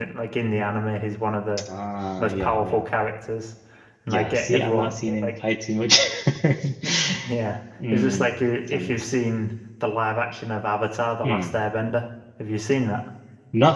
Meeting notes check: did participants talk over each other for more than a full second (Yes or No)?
Yes